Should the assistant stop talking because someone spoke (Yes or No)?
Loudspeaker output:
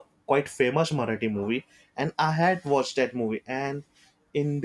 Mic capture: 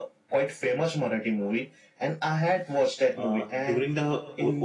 Yes